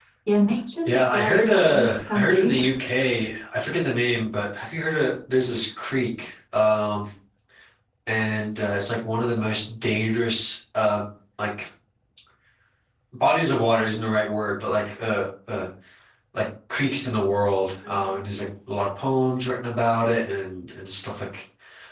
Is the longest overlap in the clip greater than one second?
Yes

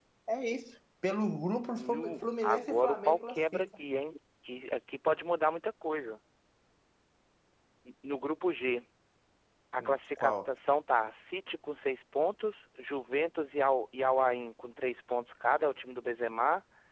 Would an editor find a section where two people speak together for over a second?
Yes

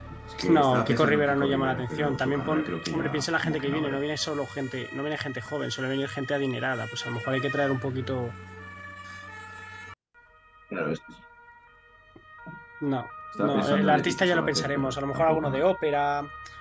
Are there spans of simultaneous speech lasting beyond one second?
Yes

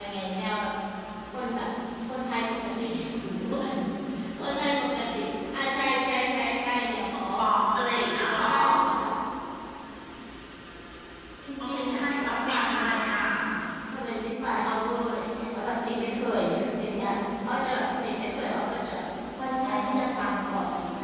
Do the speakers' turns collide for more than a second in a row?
Yes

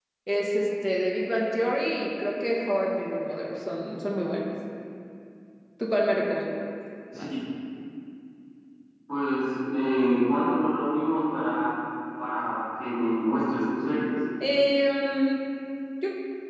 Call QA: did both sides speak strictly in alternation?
Yes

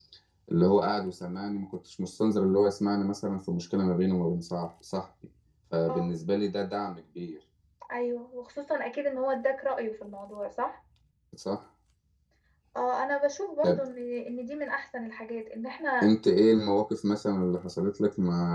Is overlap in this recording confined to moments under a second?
Yes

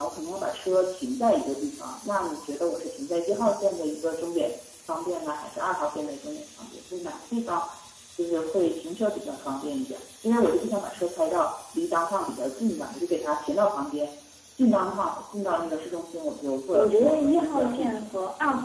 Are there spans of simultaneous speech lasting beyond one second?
Yes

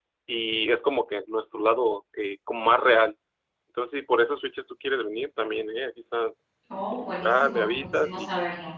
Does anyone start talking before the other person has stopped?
Yes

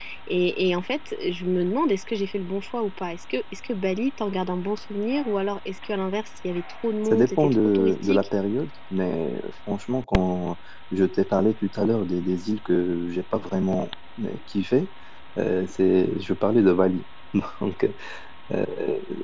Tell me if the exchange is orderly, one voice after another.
No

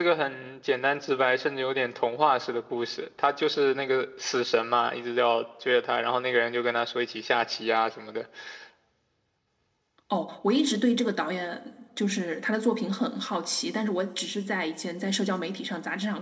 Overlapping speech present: No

